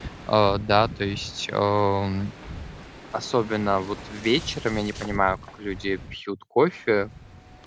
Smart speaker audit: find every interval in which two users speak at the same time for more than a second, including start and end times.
none

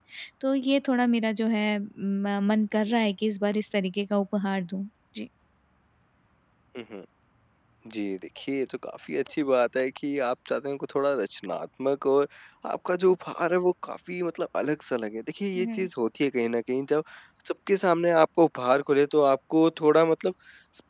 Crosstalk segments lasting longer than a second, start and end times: none

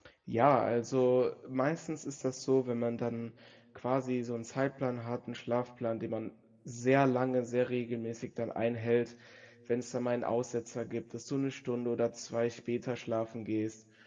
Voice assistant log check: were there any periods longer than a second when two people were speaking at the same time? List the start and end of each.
none

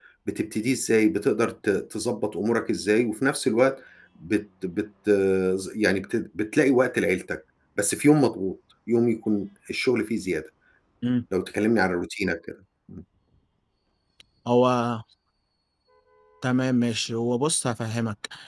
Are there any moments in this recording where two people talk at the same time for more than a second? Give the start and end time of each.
none

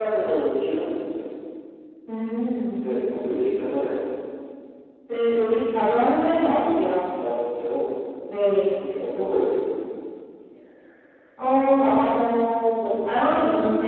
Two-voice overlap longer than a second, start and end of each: none

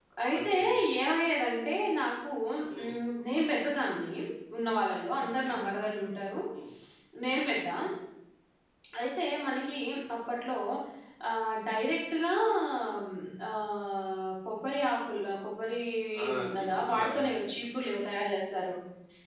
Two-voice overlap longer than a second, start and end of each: 16.2-17.4

